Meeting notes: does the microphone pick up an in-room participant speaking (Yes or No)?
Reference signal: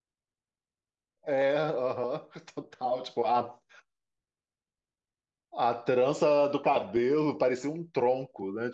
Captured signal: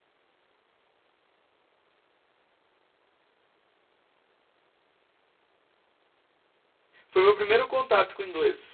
Yes